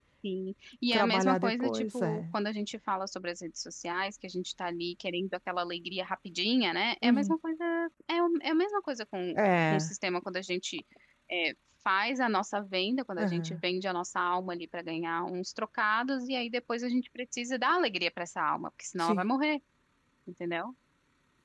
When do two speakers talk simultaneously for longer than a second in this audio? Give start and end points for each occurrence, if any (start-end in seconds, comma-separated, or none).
0.9-2.2